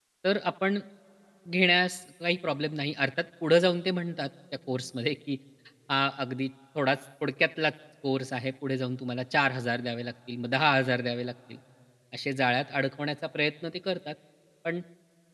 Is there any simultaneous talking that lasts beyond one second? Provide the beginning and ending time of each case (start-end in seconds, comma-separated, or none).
none